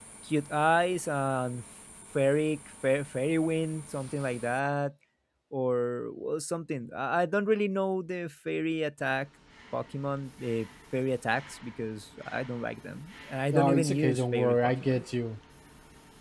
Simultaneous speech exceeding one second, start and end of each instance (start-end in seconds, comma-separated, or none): 13.5-15.0